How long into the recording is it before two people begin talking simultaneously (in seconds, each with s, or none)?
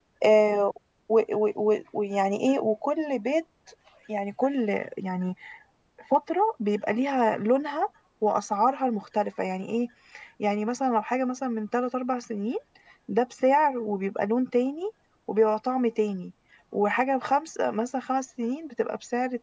none